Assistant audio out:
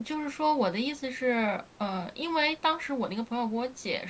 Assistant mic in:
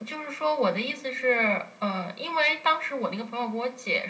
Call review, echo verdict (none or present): present